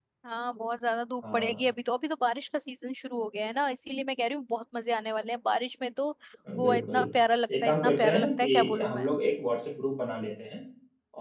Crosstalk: present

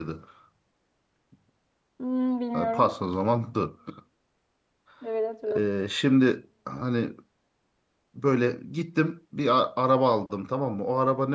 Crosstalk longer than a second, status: none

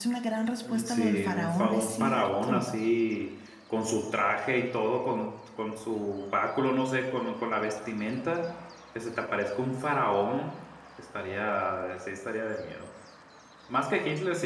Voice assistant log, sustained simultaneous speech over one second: present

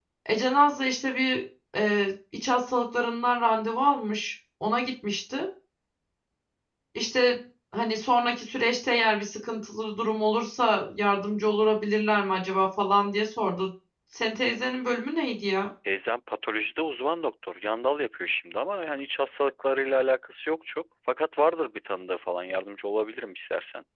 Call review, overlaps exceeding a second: none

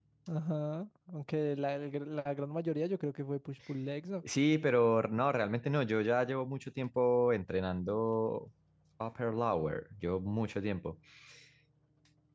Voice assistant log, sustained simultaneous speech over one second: none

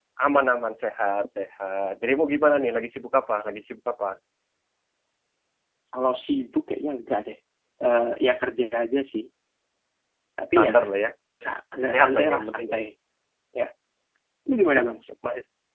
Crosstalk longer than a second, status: present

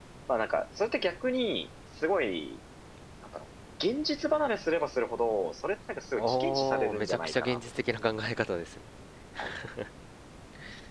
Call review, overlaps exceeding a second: present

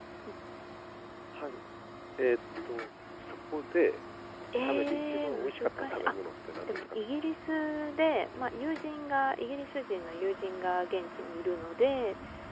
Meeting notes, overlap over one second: present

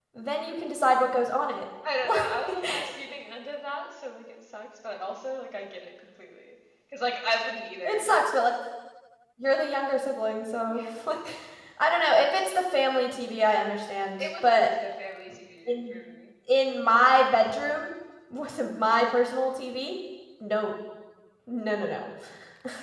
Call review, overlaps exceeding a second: none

